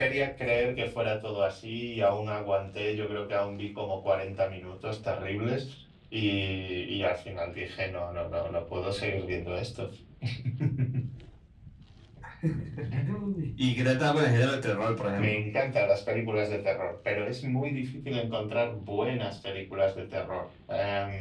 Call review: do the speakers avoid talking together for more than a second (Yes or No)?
Yes